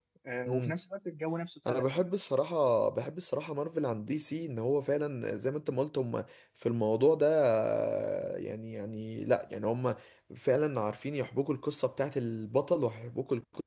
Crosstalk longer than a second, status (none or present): none